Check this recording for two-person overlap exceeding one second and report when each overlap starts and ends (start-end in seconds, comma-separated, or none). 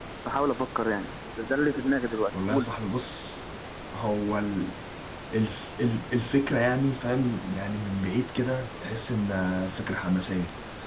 none